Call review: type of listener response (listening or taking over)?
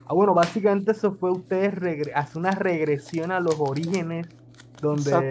listening